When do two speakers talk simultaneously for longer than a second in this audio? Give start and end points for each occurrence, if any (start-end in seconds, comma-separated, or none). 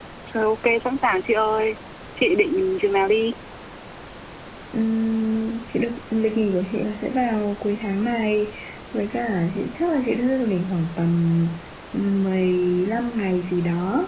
none